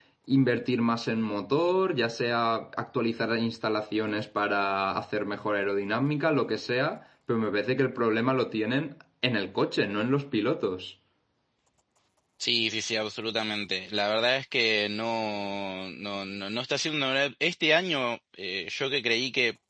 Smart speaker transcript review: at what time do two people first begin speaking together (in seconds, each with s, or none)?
none